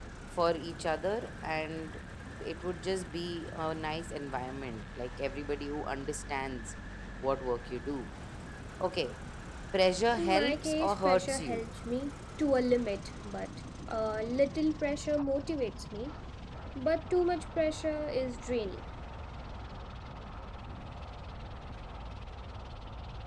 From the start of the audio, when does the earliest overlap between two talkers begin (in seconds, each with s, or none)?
10.1 s